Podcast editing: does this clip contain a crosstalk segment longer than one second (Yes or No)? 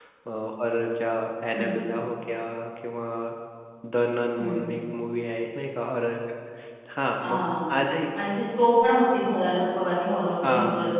No